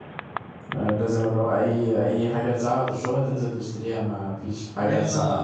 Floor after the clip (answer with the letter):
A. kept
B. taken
B